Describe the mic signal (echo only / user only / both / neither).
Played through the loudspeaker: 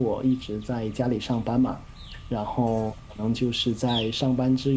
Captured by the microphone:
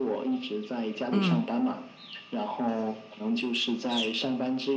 both